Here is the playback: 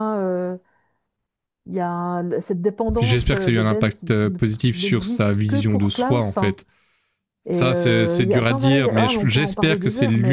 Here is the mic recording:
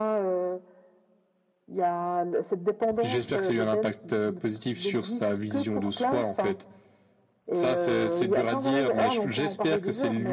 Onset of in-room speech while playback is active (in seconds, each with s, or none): none